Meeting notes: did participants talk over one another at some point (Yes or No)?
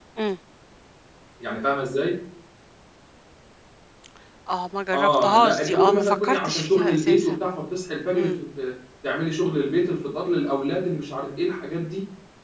Yes